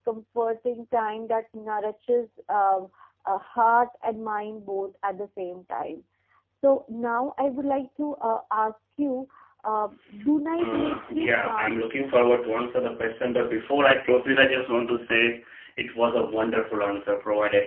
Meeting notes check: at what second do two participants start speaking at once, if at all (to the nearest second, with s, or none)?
11 s